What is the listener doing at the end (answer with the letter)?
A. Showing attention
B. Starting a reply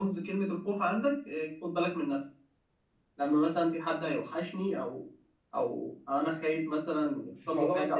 B